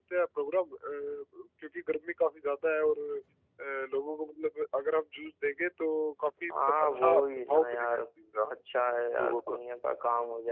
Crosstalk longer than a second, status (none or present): present